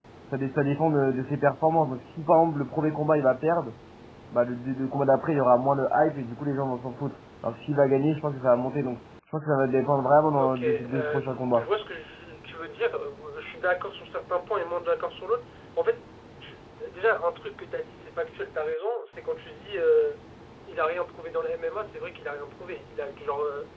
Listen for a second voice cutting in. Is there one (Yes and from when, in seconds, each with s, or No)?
Yes, from 10.4 s